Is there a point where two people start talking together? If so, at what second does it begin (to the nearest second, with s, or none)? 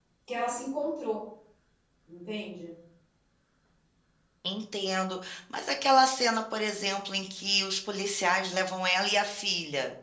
none